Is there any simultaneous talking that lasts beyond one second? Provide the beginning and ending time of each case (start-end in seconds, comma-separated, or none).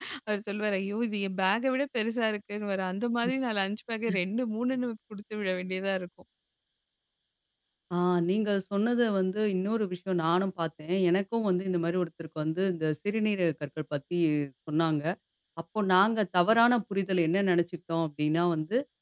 none